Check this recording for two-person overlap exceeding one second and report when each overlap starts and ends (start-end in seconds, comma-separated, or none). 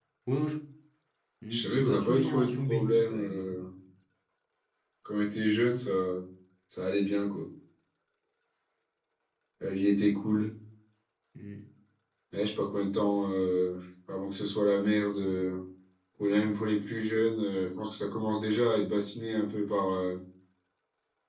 1.5-3.6